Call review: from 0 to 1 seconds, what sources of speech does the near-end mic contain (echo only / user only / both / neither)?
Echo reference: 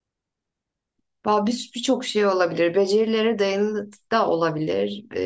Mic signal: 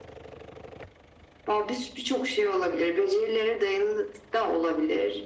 neither